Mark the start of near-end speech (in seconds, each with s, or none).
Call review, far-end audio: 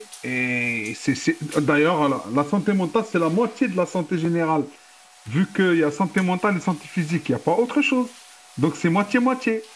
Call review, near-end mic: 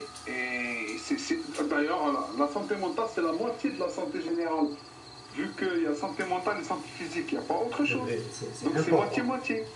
7.8 s